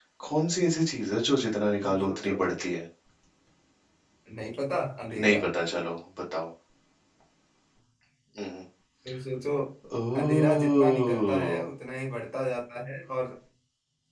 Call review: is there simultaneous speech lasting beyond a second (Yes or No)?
Yes